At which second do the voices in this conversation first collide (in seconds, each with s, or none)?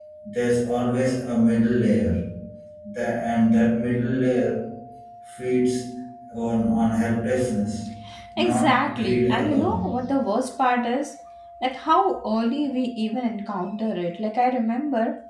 8.4 s